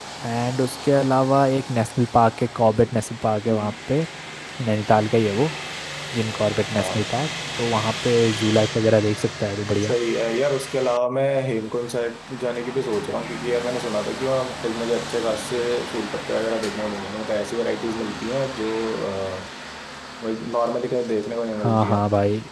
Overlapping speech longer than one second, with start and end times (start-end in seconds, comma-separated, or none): none